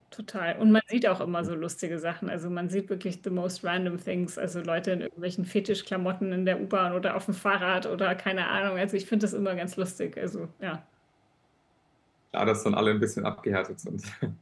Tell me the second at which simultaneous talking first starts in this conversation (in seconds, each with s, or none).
none